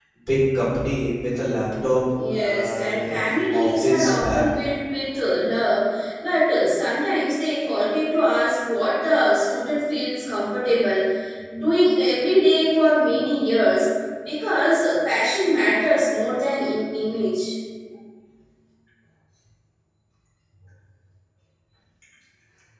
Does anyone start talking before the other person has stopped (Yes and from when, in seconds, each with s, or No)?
Yes, from 2.1 s